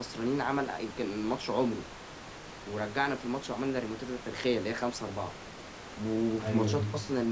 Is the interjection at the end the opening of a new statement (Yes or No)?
No